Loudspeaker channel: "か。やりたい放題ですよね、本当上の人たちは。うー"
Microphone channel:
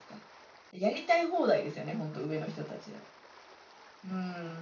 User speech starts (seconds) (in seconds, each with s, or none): none